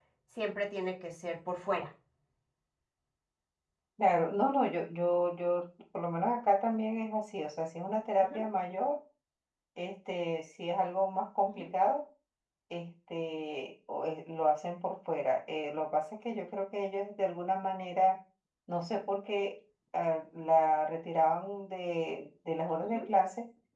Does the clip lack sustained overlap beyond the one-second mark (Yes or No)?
Yes